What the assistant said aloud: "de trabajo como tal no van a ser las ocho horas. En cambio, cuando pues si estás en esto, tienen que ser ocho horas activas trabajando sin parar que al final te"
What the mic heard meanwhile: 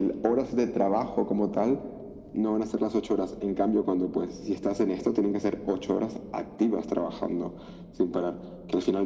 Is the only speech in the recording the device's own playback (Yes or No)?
Yes